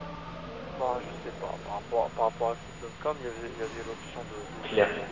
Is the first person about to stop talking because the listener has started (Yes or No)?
Yes